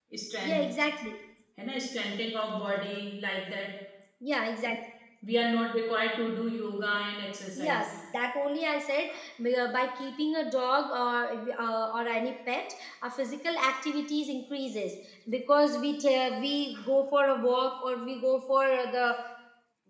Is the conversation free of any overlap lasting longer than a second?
Yes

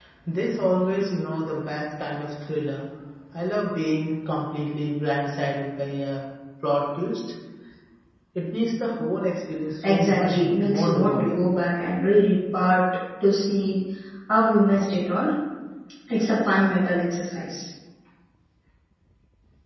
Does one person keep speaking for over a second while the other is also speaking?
Yes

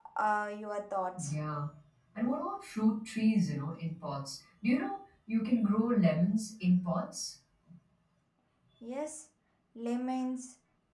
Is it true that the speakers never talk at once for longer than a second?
Yes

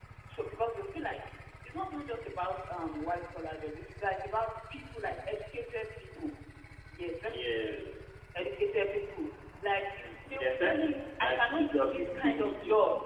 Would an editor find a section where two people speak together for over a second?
Yes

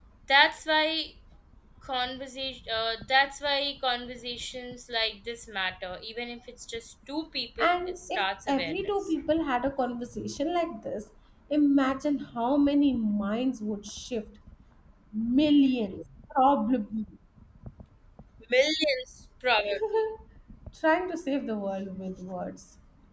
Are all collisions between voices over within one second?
No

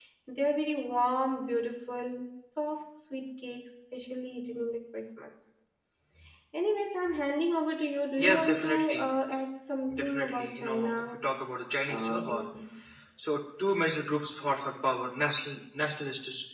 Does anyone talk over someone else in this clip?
Yes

